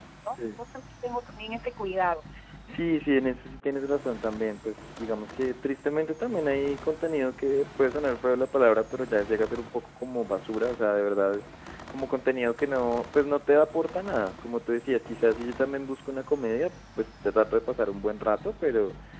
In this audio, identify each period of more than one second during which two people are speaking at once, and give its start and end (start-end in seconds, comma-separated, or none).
none